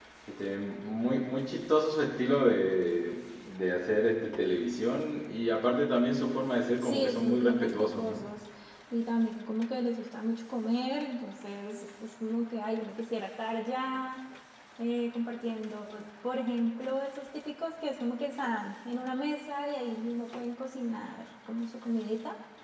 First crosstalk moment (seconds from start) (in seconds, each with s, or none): 6.8 s